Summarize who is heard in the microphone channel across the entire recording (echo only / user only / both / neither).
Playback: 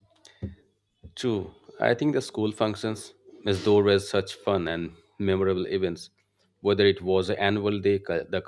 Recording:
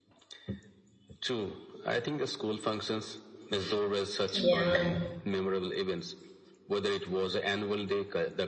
both